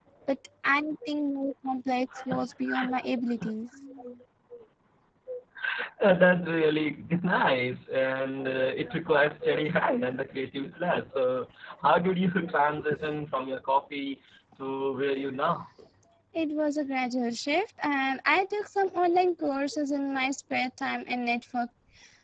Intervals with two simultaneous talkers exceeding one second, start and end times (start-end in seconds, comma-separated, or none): none